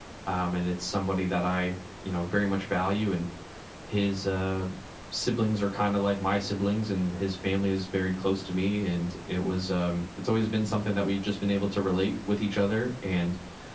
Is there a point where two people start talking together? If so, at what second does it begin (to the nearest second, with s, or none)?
none